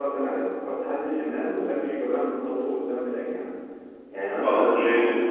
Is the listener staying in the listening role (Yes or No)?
Yes